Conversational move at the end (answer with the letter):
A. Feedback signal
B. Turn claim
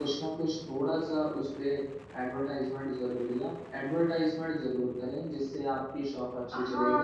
B